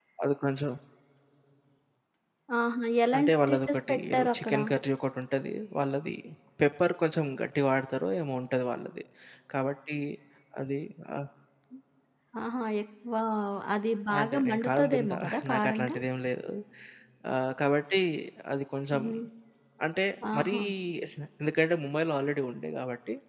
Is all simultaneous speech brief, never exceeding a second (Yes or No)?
No